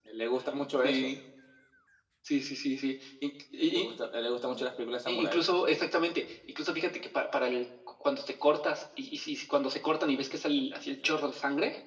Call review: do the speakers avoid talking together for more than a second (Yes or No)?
Yes